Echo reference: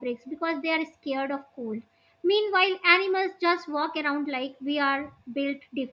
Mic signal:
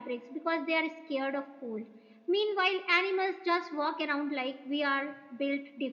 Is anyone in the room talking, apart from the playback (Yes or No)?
No